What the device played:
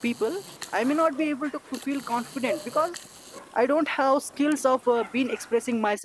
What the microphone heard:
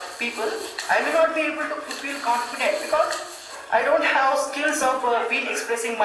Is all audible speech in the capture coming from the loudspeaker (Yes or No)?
Yes